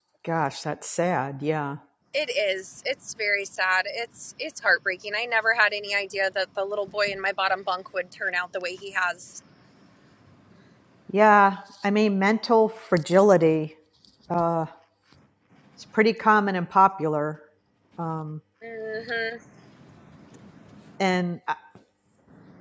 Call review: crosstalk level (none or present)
none